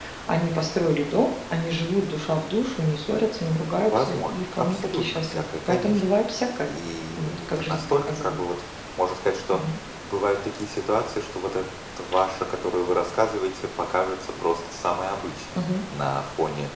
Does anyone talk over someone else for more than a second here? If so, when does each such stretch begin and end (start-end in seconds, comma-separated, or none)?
3.8-6.0, 7.2-8.4